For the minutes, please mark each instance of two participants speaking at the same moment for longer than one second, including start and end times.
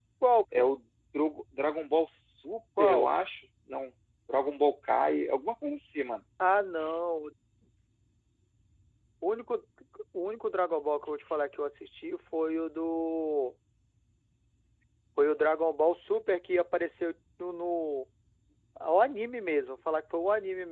none

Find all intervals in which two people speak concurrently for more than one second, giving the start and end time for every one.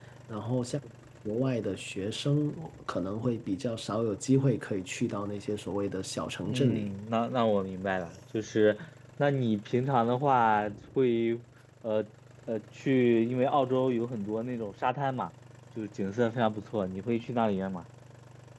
none

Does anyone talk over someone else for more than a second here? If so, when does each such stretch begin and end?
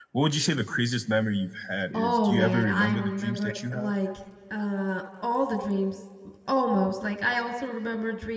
1.9-3.9

